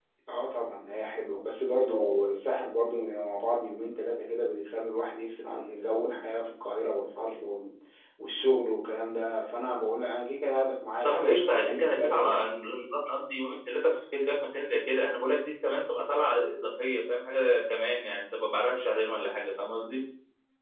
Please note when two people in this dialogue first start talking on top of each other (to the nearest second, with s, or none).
11 s